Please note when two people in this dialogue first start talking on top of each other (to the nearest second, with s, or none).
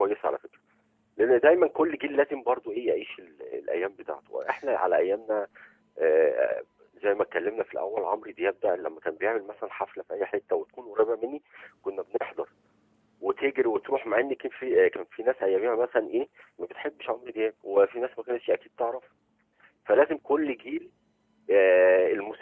none